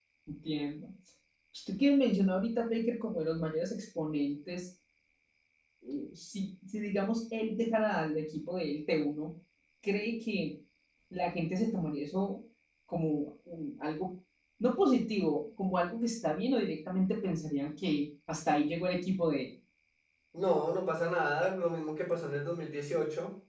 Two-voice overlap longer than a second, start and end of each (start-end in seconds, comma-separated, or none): none